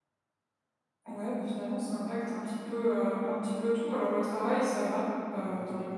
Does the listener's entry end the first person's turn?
No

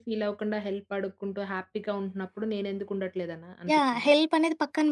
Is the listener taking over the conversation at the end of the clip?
Yes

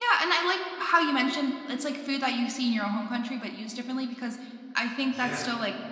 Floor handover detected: No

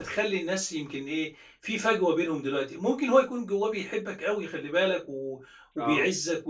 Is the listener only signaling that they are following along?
Yes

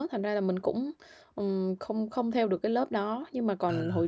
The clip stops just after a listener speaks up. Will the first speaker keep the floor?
Yes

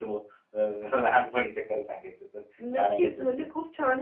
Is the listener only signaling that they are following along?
No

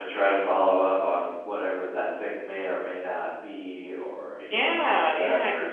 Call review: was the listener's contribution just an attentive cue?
No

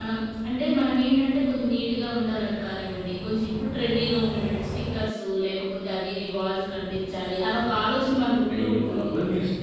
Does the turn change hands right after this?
Yes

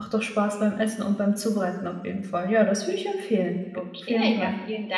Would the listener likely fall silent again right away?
No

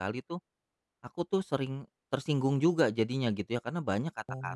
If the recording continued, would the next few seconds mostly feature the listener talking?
No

